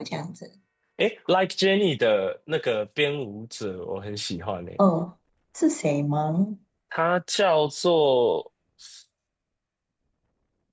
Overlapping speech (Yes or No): No